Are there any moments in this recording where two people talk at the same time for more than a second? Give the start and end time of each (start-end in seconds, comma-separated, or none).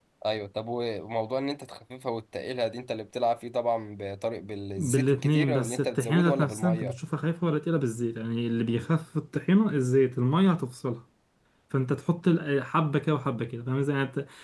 4.8-7.0